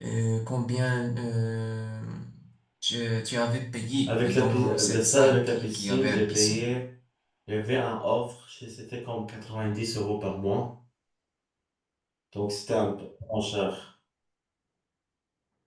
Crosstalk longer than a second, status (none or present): present